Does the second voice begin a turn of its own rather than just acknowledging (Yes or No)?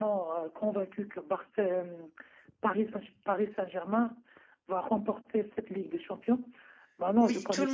Yes